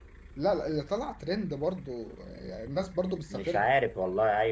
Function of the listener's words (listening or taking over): taking over